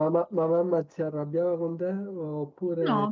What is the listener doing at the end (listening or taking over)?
taking over